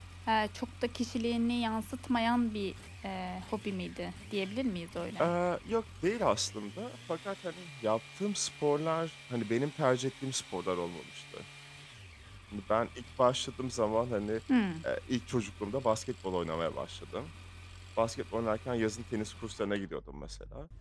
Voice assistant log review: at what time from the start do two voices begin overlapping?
none

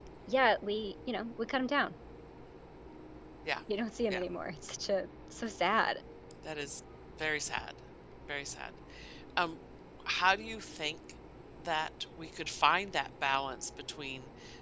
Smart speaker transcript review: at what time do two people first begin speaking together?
none

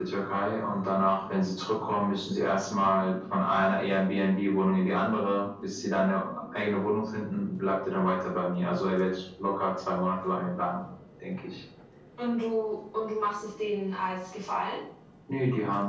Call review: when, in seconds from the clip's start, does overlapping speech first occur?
none

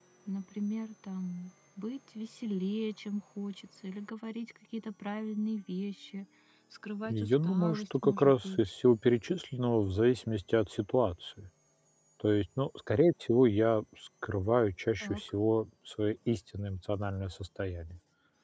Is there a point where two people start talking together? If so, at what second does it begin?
7.0 s

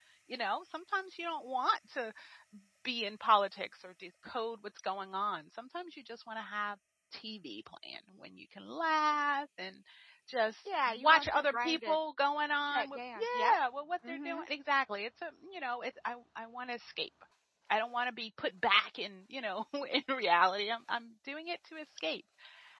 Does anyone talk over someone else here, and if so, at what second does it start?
10.6 s

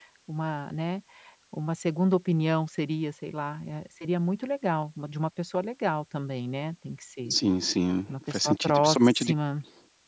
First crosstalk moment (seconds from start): 8.1 s

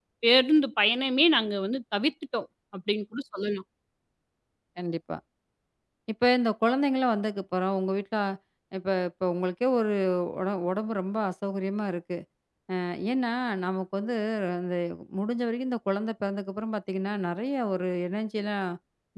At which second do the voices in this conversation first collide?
none

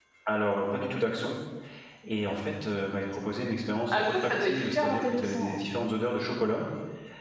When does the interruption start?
3.9 s

